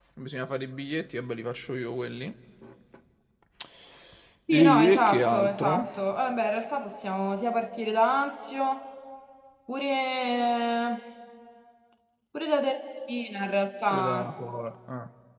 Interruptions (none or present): present